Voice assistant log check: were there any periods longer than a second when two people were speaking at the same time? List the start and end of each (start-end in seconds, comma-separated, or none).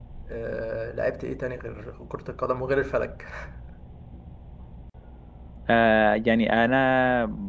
none